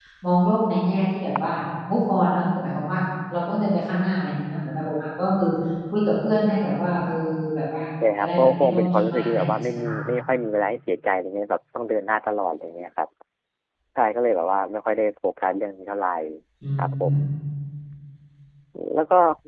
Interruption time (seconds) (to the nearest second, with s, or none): 8 s